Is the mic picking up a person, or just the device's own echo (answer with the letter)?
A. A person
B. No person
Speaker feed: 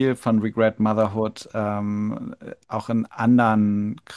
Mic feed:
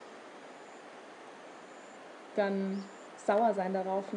A